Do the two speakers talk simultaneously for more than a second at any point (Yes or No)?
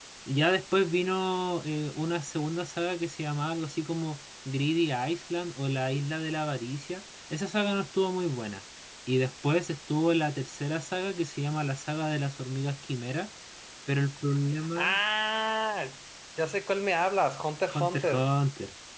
No